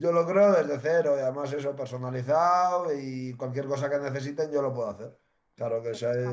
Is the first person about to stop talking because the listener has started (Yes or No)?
No